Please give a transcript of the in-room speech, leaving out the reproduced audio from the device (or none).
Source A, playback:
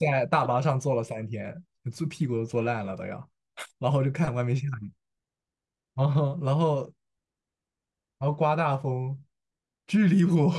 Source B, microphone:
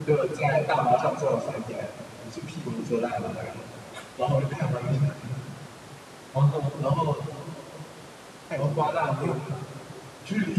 太抽象了。你有没有